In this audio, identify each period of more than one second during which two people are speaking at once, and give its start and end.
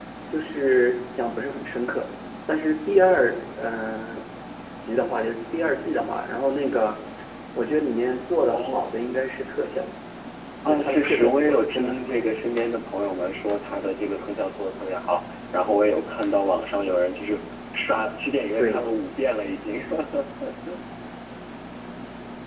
10.7-12.2

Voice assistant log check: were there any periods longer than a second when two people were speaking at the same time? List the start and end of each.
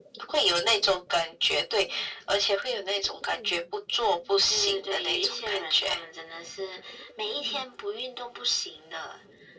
4.5-6.0

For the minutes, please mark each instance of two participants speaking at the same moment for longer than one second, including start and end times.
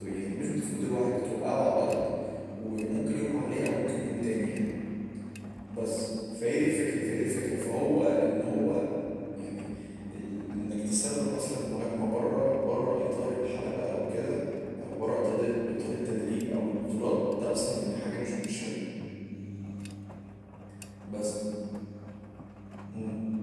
none

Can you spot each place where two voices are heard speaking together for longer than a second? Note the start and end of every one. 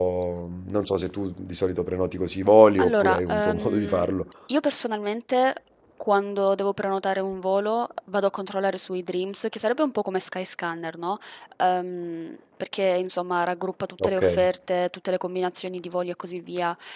2.8-4.1

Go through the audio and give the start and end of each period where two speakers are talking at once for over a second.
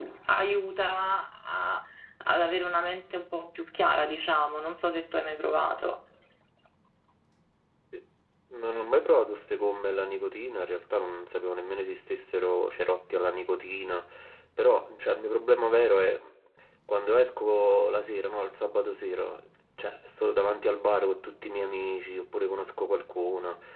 none

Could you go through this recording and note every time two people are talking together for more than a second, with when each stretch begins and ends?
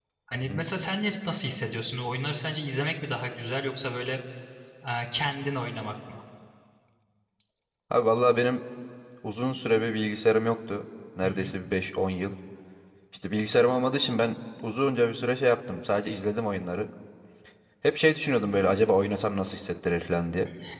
none

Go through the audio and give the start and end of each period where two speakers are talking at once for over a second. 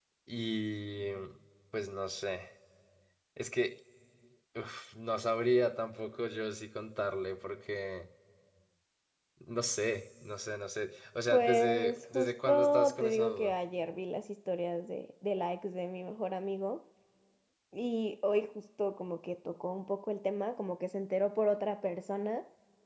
11.3-13.5

